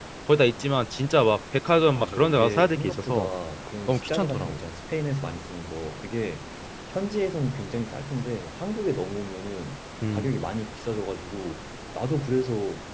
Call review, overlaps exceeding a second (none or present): present